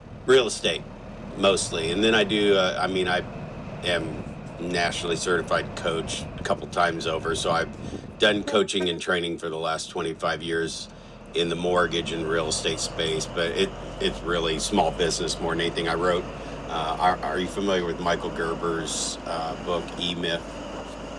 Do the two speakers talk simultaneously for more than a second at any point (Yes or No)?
No